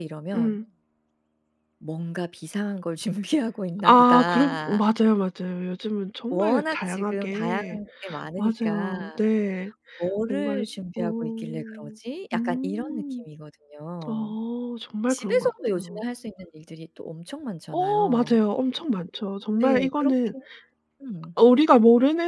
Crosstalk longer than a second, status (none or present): present